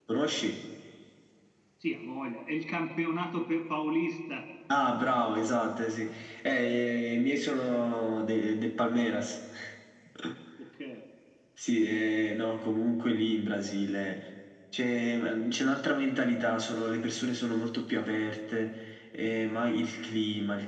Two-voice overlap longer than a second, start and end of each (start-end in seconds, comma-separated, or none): none